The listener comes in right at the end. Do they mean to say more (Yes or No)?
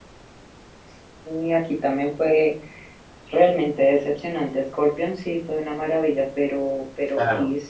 No